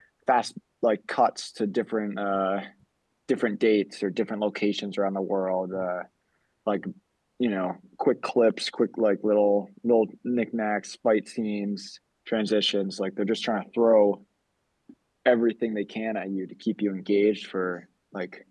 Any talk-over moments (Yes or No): No